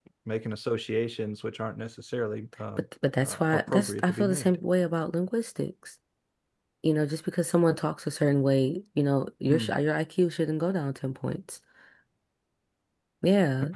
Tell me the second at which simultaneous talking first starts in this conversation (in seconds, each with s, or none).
3.2 s